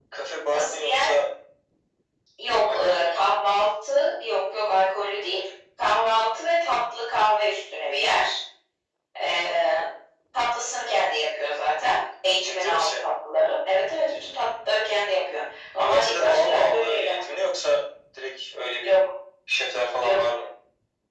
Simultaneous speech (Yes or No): Yes